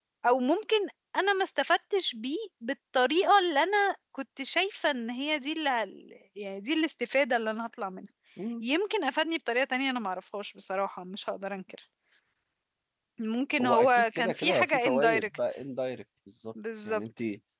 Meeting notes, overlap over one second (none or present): present